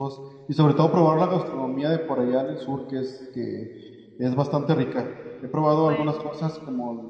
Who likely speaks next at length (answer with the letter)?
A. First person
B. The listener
A